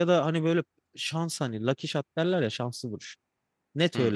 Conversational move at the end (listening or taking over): listening